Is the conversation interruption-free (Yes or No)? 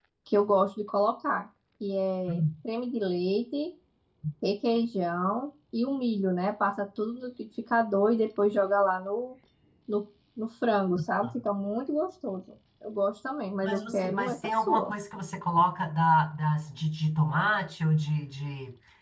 No